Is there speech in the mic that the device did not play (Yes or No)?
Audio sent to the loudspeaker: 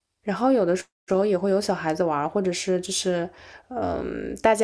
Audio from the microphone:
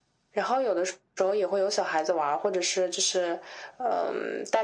No